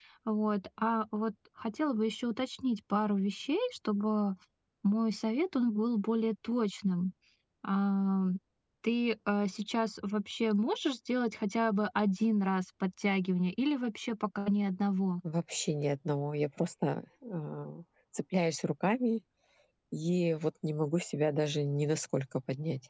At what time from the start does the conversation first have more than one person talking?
none

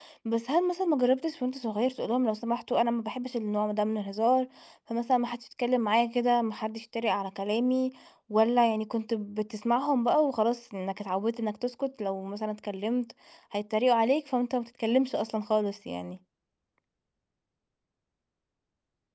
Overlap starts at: none

